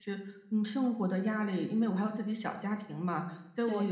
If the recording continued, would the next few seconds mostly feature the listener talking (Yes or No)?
No